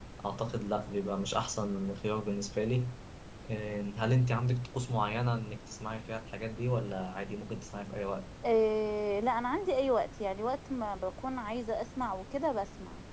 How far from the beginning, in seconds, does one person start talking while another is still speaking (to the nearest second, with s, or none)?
none